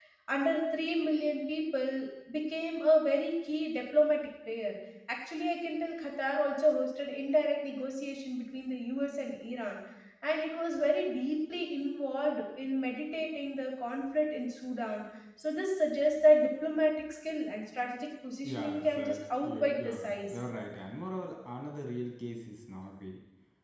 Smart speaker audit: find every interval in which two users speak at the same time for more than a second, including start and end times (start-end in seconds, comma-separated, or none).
18.4-20.4